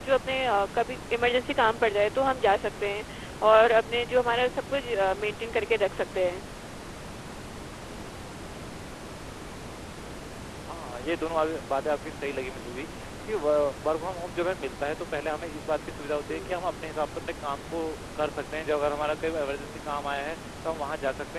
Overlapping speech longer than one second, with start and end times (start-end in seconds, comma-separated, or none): none